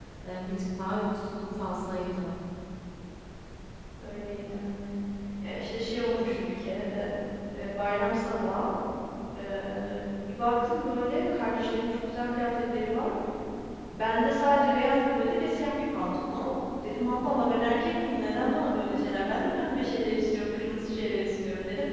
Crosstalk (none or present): none